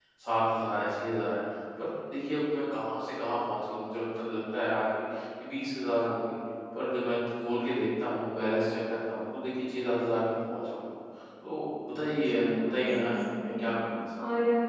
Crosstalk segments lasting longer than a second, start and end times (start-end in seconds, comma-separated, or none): 12.2-13.7